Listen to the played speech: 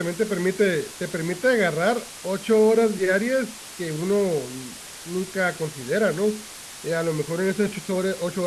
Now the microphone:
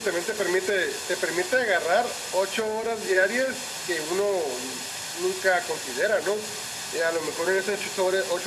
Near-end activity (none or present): none